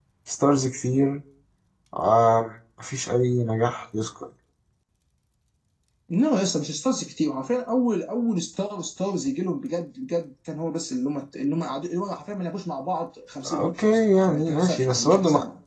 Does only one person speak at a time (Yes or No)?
No